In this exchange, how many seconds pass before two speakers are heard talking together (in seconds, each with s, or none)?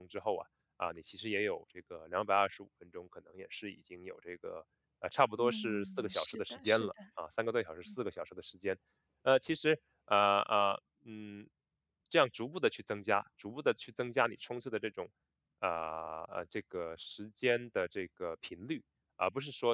5.4 s